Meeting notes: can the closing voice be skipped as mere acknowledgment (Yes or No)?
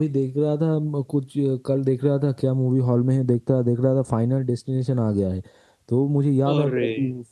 Yes